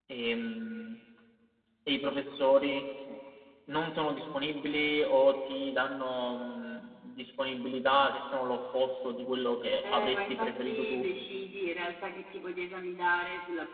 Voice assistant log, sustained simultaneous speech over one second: present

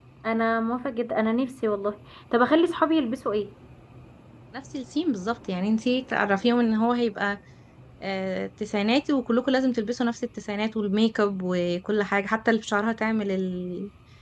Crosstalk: none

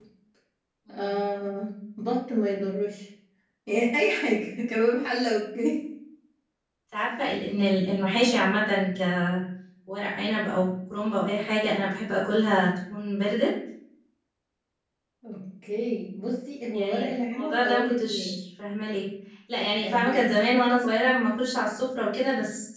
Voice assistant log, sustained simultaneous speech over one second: present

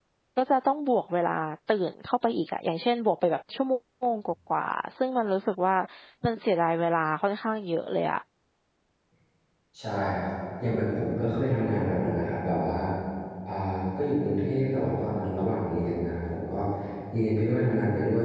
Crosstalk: none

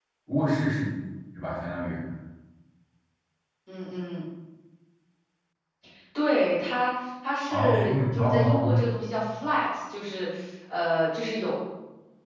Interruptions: present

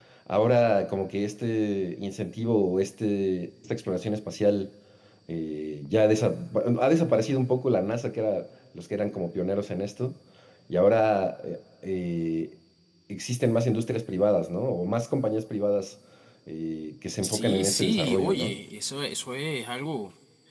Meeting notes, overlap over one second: present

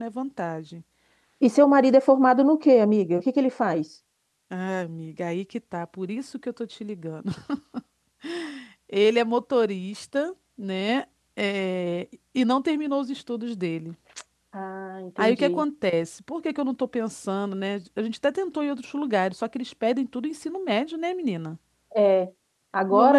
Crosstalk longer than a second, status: none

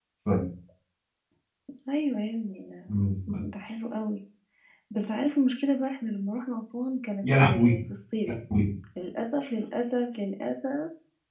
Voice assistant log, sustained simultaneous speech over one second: none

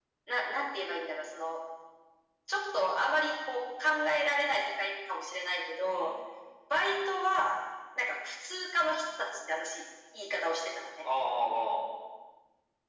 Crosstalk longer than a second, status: none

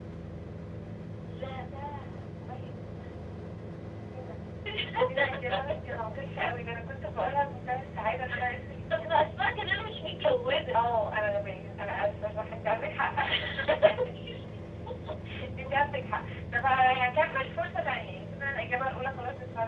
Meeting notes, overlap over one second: none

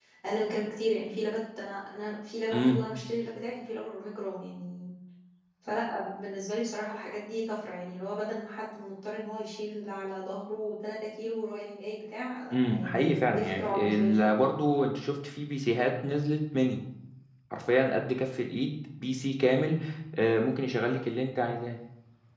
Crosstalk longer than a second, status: present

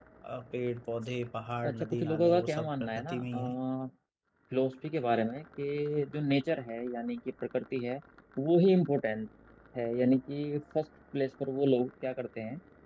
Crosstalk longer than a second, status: present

